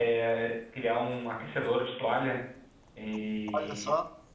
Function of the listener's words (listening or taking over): listening